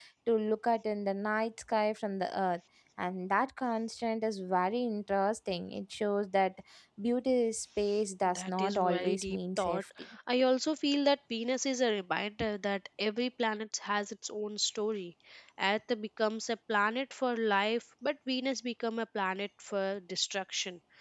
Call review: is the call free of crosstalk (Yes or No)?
No